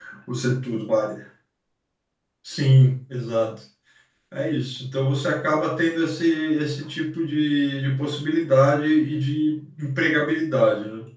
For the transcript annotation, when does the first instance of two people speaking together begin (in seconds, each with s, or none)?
none